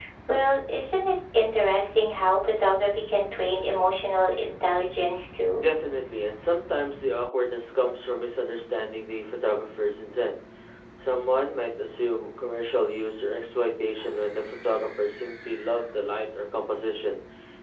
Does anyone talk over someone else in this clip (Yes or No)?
No